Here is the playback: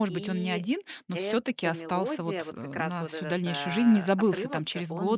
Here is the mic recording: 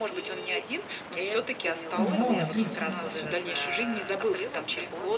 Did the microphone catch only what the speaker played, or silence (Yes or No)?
No